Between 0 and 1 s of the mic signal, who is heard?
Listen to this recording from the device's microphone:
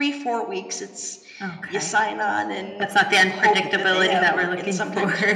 echo only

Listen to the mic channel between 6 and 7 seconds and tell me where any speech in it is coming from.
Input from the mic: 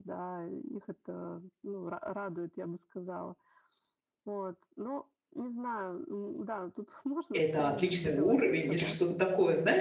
echo only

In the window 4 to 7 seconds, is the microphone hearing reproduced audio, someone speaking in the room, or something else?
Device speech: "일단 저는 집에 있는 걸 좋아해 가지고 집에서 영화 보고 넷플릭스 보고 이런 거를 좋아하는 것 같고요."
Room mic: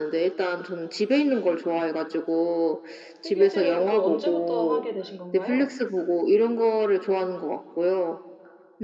both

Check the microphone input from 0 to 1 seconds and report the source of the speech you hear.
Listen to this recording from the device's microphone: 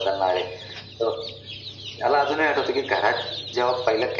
echo only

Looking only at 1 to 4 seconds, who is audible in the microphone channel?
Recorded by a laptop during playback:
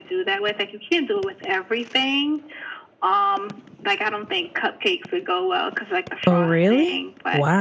echo only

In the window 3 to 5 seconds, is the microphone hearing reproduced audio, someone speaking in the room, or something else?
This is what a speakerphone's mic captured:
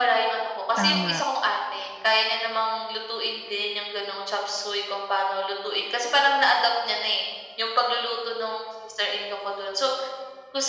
echo only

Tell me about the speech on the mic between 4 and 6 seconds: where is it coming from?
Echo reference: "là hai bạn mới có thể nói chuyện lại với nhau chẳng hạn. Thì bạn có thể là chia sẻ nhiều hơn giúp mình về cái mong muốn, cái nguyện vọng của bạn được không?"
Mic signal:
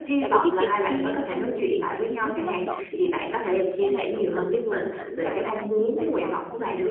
both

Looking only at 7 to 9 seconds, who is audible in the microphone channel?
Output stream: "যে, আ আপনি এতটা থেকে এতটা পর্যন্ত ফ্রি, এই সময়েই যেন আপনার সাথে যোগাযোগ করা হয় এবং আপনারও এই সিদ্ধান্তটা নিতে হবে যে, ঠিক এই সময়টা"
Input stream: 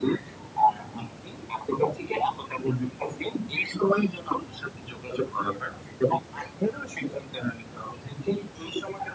echo only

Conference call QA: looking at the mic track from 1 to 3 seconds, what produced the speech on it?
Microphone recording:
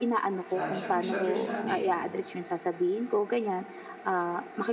both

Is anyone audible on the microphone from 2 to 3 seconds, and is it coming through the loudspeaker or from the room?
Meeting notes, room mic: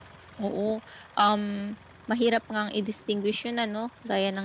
user only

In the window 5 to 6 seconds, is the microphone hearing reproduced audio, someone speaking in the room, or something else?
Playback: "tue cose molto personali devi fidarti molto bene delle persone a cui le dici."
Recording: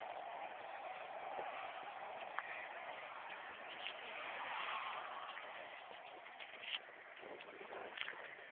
neither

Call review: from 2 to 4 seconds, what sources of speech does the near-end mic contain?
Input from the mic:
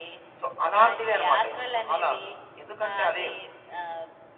echo only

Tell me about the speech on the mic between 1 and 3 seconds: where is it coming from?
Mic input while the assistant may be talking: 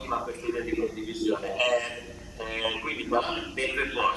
echo only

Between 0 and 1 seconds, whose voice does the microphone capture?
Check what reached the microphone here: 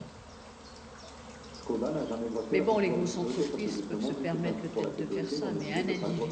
neither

